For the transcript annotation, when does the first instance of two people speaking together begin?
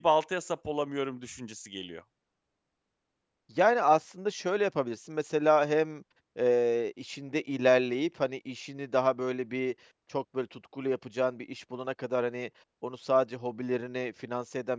none

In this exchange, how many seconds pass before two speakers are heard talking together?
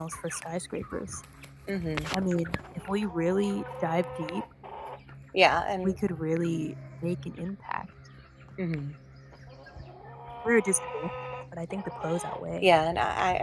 none

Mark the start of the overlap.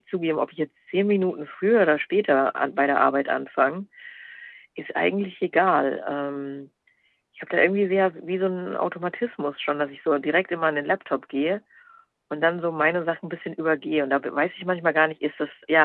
none

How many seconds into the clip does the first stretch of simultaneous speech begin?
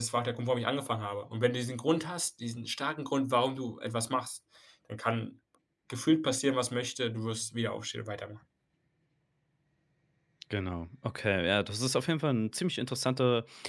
none

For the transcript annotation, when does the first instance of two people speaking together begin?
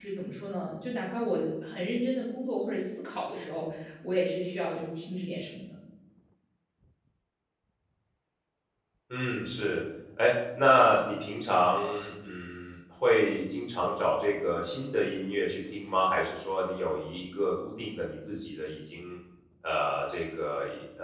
none

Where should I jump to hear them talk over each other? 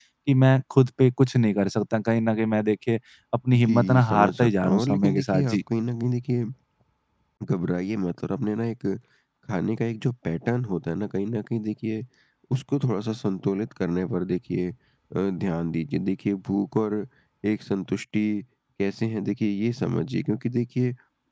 3.7 s

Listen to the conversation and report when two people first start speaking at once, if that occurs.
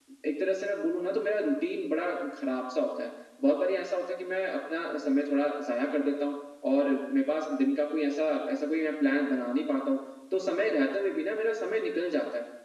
none

